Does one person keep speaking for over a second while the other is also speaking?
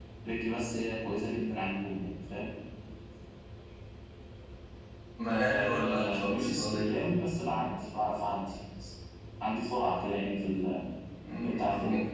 Yes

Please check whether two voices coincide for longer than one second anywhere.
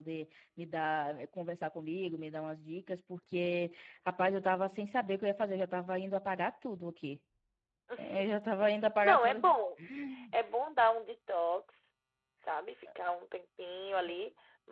No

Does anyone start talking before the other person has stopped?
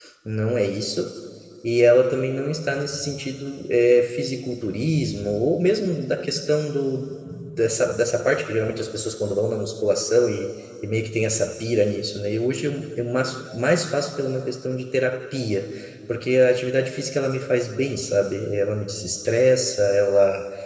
No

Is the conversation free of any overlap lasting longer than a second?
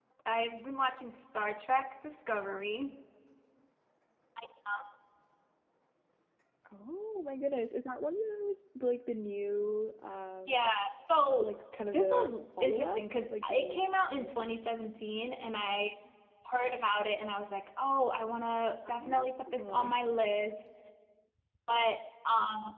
No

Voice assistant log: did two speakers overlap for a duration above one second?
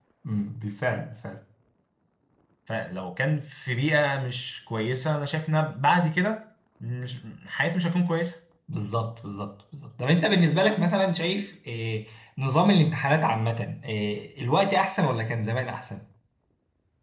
No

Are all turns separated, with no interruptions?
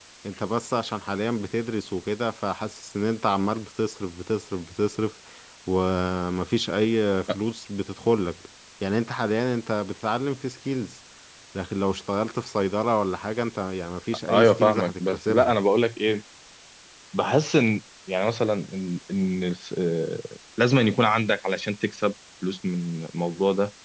No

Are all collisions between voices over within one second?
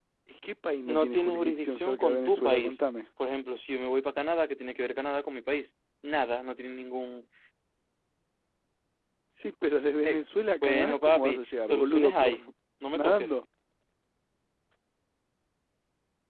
No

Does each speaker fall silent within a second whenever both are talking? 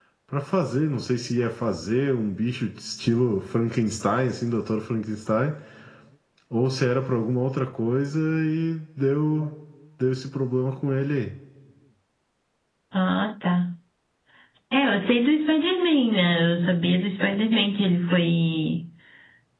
Yes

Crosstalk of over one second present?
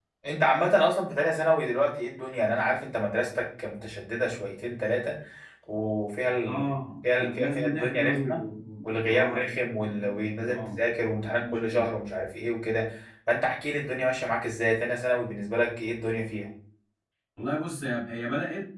Yes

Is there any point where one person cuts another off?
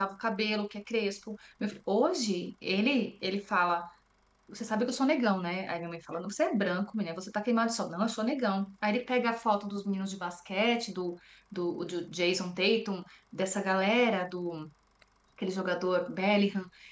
No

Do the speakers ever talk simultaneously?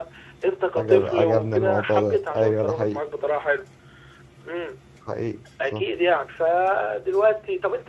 Yes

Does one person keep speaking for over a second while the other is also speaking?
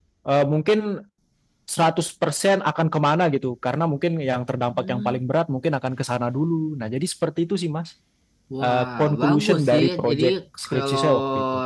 Yes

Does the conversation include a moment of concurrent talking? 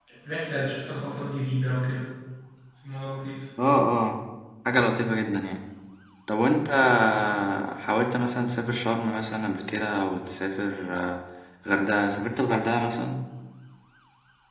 No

